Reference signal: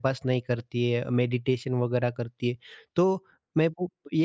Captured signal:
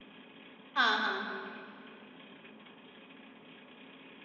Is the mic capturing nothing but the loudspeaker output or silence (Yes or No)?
No